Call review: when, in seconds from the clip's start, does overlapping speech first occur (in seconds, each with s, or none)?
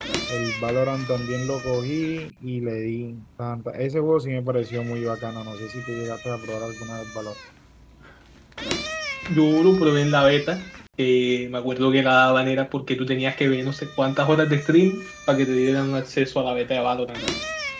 none